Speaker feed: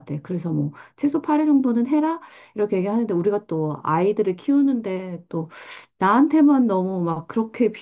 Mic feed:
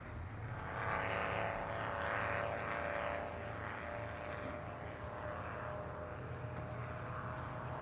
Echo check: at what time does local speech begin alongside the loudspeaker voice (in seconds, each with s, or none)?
none